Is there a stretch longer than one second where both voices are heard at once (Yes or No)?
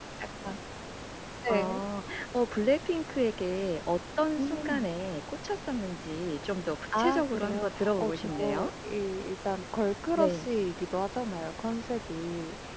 Yes